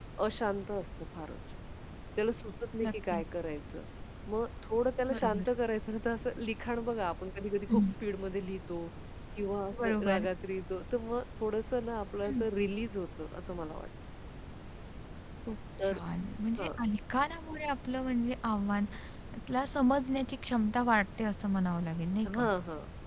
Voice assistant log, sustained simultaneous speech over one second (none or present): none